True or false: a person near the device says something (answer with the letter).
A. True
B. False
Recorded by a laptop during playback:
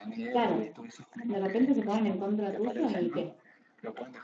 A